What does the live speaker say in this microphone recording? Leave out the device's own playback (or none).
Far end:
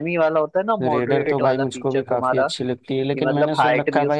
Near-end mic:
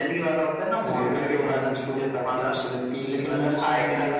none